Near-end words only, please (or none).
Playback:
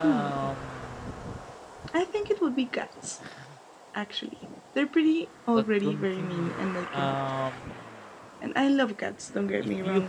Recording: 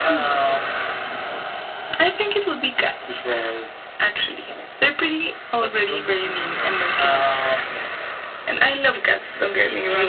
because